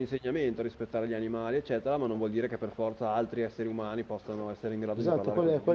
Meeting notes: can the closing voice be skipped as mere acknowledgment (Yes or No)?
No